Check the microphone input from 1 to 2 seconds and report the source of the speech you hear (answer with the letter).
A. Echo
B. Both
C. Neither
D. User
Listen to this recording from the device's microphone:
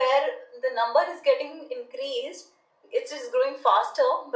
A